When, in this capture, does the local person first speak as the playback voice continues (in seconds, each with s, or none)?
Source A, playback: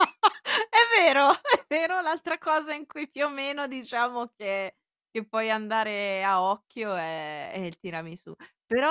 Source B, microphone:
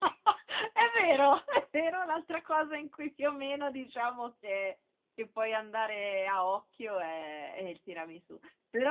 none